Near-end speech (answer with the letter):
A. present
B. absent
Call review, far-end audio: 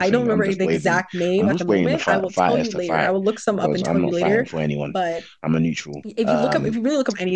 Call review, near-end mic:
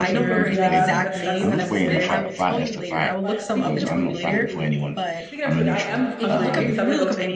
A